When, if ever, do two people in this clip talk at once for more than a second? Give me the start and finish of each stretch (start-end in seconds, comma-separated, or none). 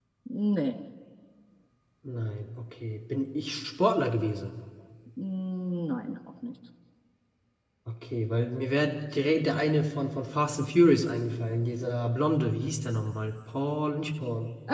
none